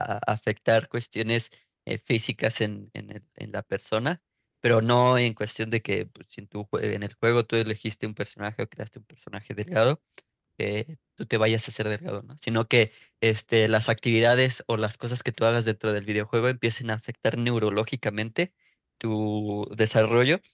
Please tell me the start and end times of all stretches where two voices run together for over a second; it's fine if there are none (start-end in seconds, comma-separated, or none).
none